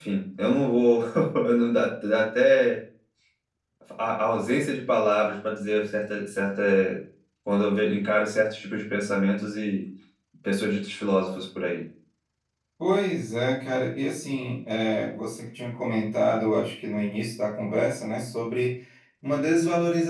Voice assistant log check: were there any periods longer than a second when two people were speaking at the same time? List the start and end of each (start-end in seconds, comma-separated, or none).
none